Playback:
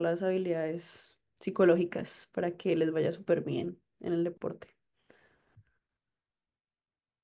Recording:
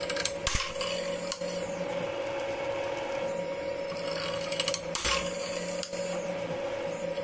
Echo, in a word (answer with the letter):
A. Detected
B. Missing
B